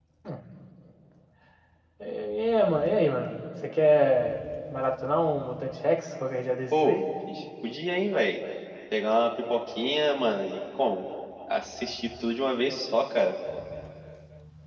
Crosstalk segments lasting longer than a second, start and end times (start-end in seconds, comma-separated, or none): none